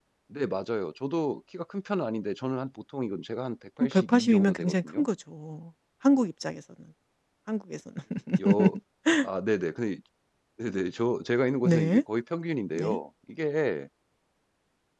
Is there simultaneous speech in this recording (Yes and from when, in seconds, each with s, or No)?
Yes, from 3.8 s